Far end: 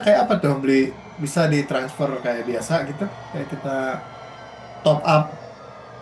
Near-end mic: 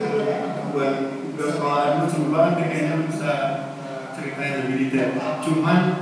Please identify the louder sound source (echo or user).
user